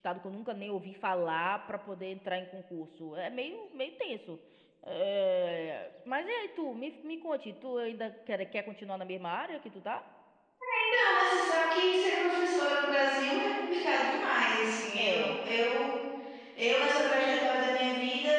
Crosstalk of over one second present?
No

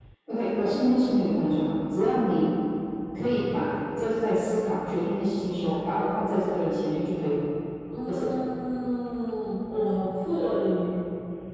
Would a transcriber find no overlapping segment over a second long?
Yes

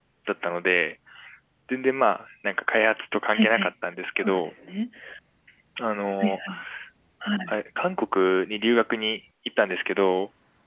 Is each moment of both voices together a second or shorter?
Yes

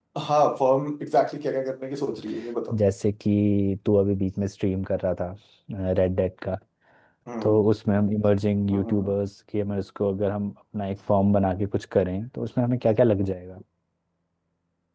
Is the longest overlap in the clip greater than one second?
No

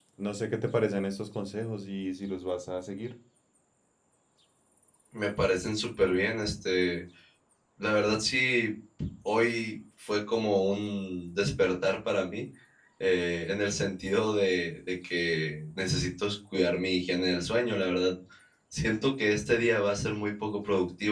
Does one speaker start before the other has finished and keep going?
No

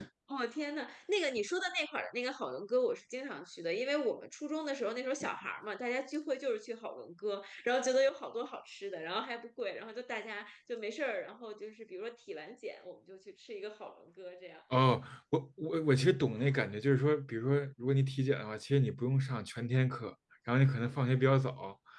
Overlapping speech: No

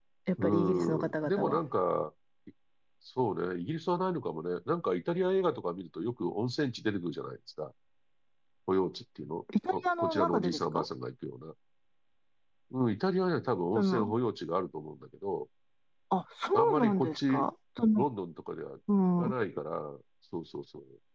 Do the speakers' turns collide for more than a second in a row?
Yes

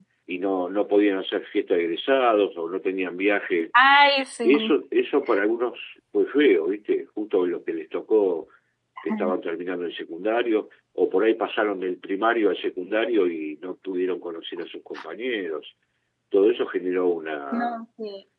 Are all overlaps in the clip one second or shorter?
Yes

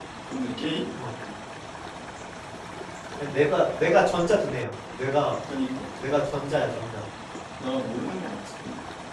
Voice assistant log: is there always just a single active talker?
Yes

